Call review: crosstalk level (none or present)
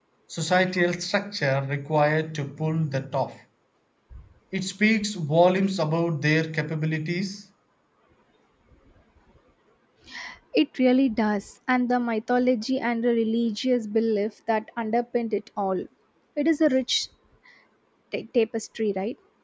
none